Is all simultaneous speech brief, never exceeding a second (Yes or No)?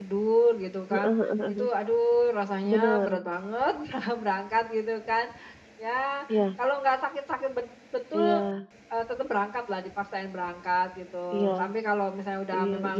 Yes